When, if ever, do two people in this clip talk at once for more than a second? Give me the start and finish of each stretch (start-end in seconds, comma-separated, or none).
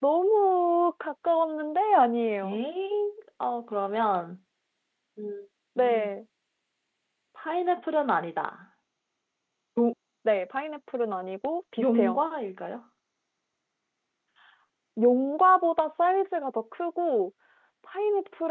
none